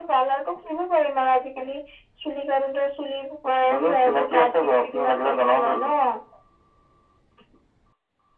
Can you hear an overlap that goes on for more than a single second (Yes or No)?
Yes